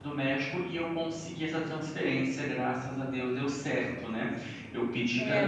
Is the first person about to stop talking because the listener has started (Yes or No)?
Yes